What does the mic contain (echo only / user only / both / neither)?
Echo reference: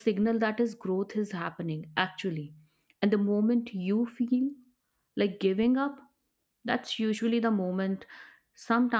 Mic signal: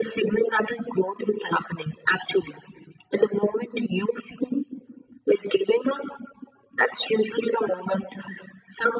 echo only